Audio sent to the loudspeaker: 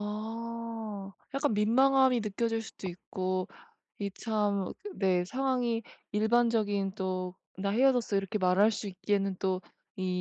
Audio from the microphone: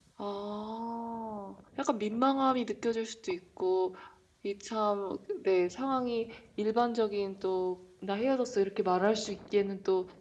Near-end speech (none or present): none